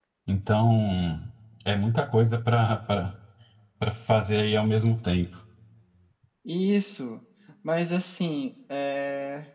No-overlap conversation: Yes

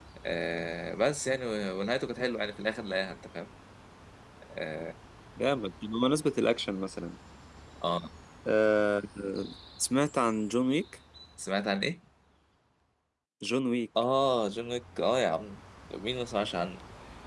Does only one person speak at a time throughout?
Yes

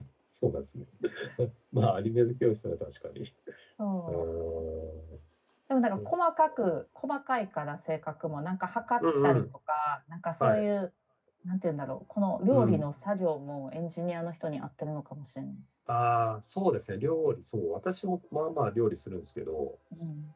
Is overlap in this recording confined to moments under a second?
Yes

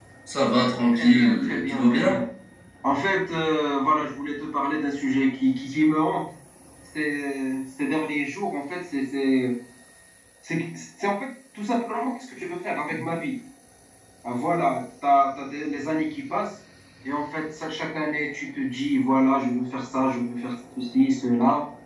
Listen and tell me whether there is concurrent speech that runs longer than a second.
Yes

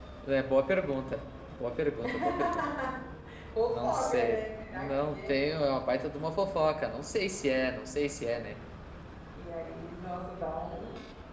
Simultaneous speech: Yes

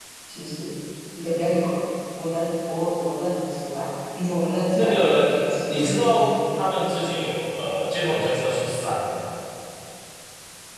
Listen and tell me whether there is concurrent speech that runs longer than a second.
No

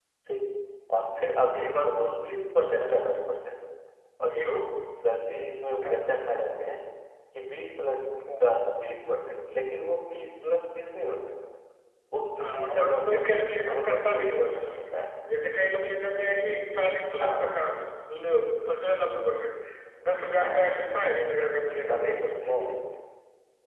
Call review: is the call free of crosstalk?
No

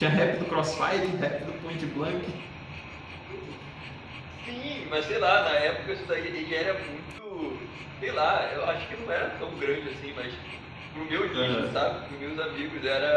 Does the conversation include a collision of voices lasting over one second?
No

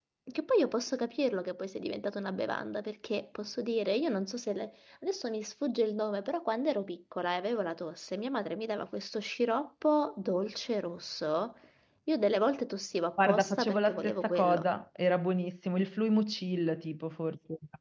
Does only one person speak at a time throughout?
No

